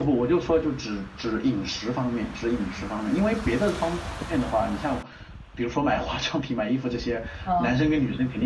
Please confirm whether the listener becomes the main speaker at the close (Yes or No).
No